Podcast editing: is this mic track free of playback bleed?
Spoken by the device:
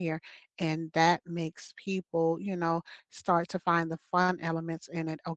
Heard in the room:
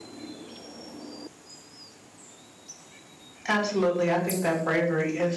Yes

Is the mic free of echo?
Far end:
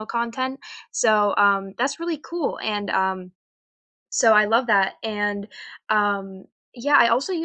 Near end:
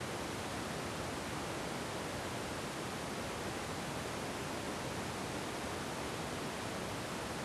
Yes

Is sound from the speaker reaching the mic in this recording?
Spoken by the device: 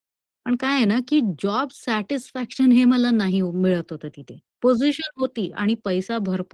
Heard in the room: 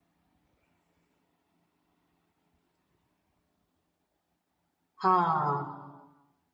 No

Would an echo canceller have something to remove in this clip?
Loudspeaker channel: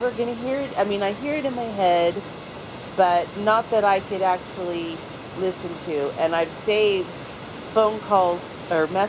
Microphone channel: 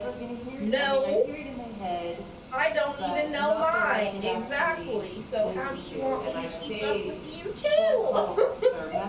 Yes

